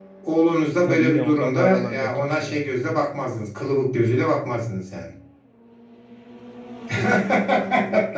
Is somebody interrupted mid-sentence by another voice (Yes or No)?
Yes